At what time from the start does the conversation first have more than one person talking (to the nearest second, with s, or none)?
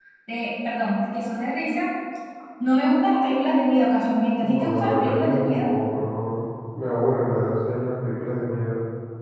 4 s